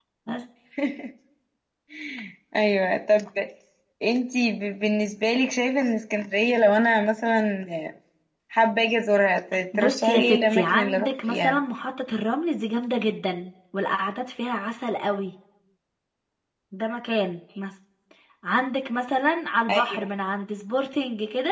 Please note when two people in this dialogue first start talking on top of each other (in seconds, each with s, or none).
9.8 s